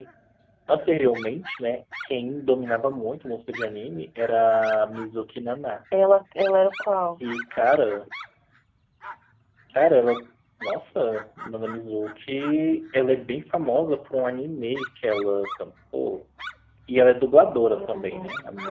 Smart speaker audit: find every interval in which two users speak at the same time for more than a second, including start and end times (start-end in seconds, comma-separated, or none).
none